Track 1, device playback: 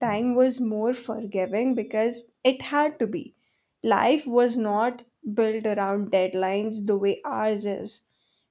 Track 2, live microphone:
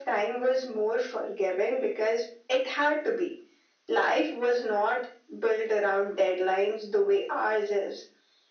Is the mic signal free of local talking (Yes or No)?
Yes